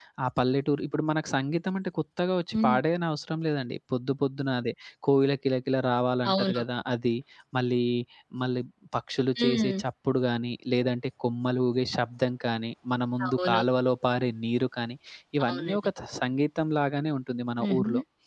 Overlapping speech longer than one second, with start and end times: none

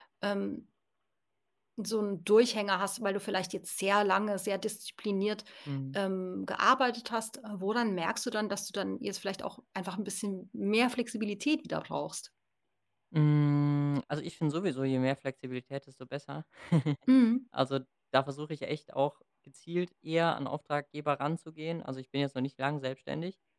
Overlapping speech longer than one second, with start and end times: none

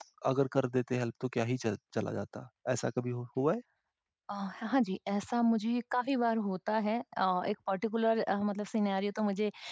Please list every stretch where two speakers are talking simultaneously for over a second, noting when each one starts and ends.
none

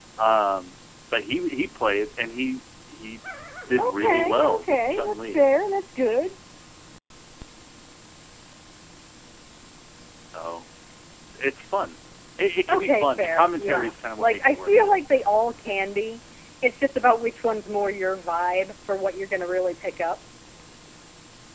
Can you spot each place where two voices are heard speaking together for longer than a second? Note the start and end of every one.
3.8-5.4, 12.7-14.9

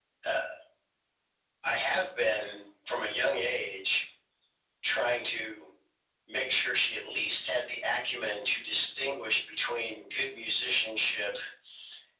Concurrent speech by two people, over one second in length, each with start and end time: none

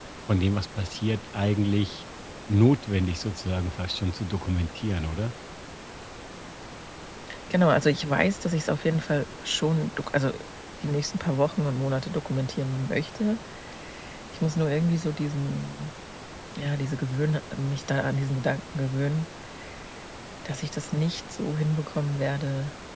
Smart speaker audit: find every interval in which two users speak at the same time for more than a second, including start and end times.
none

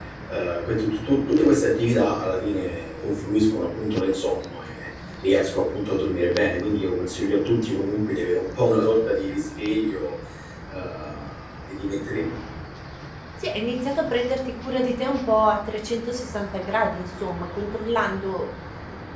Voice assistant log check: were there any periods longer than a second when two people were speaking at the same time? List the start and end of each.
none

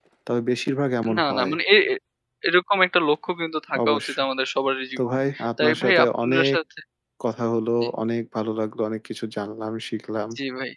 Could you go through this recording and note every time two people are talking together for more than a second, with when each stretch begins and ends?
5.0-6.6

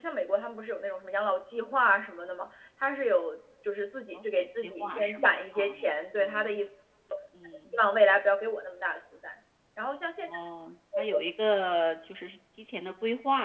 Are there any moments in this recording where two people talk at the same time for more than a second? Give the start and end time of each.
4.1-5.7

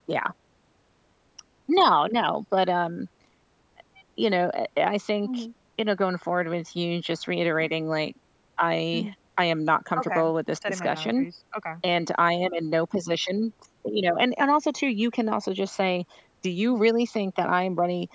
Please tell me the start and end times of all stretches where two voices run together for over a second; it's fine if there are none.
10.0-11.2

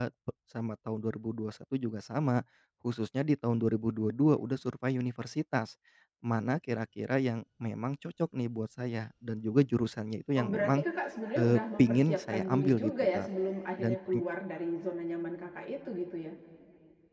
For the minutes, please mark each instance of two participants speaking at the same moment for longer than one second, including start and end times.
11.4-13.3

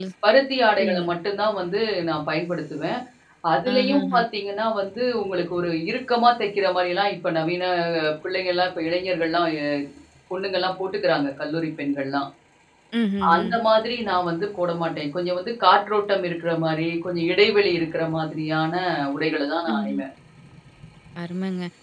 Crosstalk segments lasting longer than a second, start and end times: none

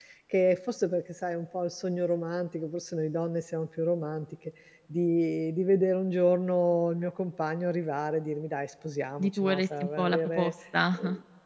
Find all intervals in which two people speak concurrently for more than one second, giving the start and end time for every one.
9.2-10.5

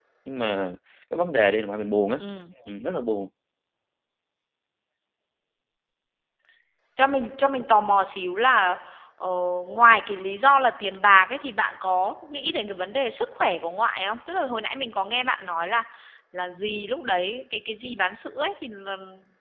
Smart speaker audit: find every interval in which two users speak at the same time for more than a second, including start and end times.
none

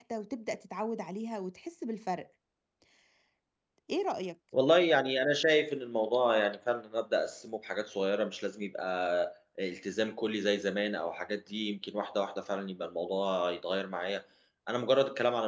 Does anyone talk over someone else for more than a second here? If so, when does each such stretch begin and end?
none

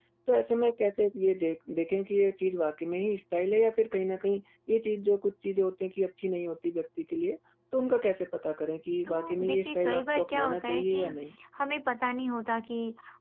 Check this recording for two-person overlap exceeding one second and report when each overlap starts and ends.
9.1-11.0

